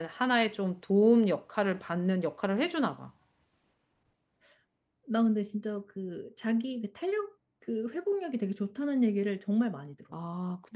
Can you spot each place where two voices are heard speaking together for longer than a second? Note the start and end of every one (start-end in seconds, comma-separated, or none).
none